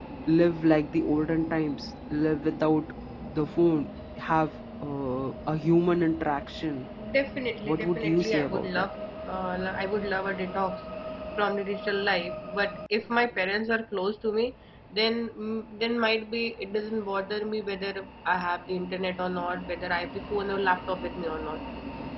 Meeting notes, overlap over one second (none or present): present